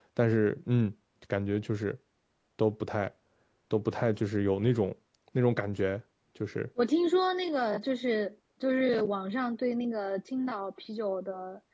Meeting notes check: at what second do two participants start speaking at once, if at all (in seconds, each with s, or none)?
none